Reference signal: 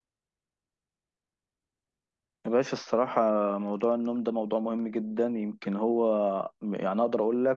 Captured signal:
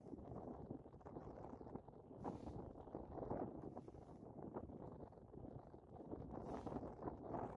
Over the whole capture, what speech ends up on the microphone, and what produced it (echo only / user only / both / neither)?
neither